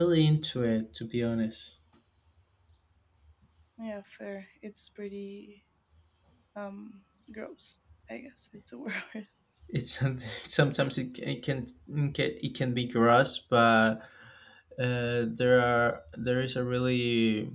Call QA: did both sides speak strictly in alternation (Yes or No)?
Yes